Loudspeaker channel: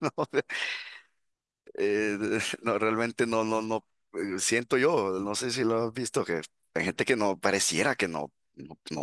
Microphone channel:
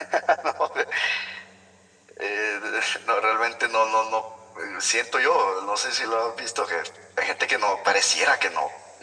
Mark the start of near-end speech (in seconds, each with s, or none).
none